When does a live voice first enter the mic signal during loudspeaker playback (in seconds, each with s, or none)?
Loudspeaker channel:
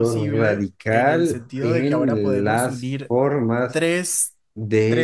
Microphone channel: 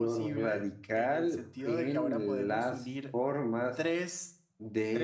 none